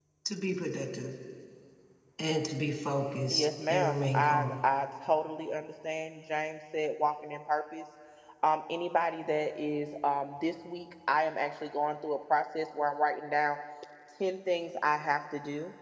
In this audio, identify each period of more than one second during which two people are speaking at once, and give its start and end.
3.3-4.5

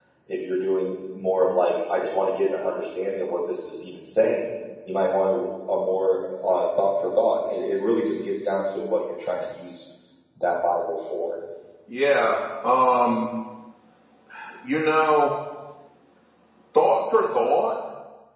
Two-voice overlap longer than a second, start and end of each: none

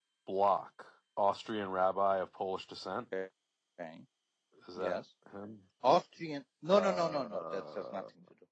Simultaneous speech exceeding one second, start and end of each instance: 6.7-8.0

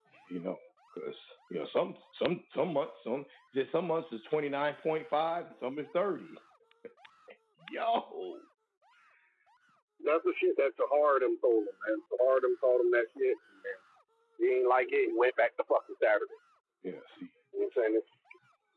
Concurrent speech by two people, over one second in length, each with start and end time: none

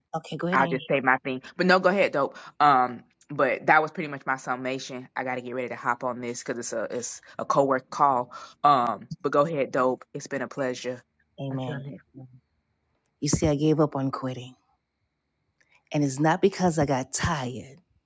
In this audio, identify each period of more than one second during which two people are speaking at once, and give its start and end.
none

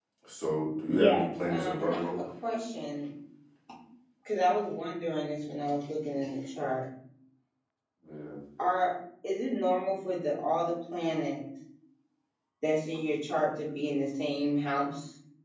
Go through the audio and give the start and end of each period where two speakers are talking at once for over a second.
0.9-2.2

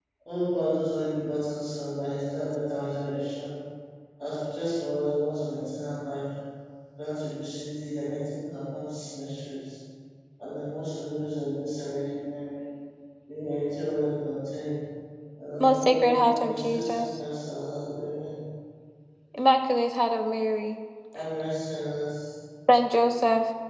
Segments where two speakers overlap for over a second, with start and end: 15.6-17.1

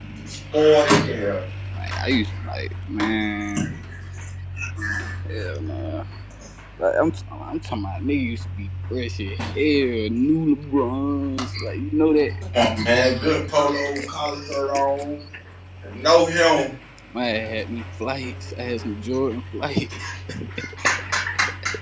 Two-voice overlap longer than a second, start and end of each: none

